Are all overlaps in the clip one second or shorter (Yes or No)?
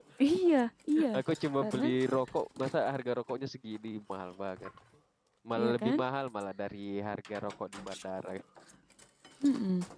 Yes